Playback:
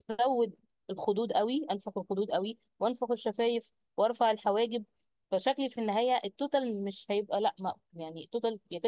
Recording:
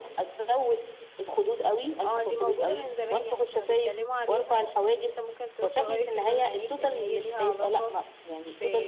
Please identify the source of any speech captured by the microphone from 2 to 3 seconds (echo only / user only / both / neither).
both